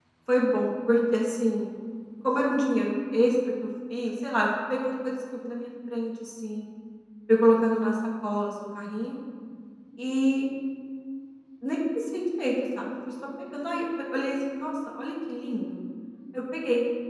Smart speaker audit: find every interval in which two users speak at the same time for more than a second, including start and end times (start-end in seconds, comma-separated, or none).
none